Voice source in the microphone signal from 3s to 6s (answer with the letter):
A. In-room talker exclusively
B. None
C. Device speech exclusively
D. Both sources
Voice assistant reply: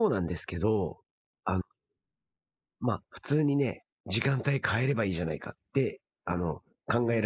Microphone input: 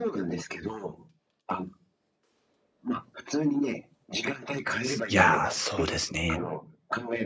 D